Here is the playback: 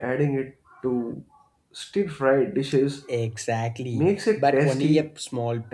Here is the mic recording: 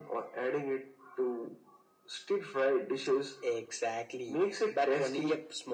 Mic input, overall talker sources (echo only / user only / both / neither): echo only